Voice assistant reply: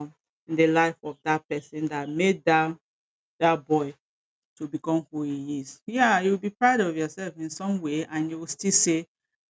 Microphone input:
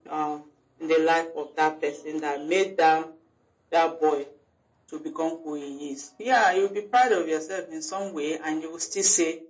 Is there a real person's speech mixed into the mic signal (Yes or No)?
No